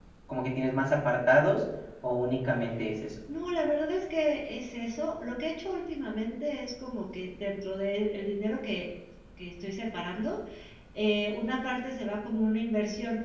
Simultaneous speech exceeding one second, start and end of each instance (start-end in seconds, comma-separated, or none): none